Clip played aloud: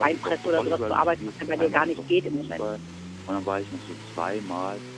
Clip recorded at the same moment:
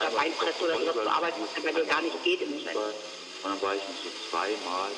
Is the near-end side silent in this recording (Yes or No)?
Yes